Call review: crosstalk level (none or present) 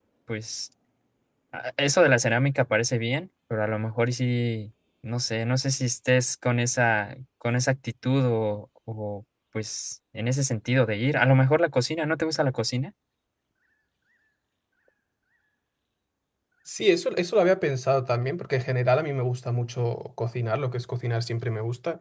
none